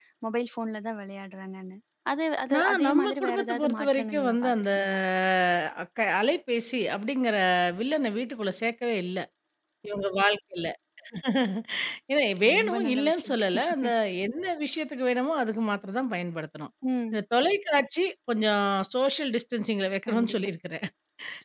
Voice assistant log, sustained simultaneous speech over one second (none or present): present